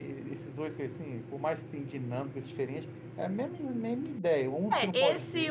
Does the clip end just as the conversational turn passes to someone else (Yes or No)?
Yes